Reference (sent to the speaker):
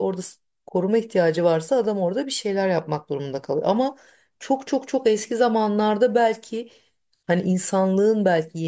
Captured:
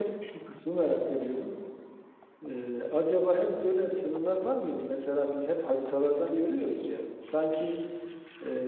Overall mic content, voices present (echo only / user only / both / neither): user only